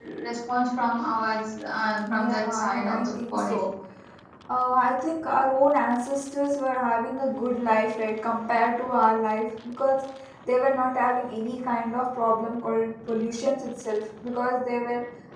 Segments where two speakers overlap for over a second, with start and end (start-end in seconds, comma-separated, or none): 2.1-3.7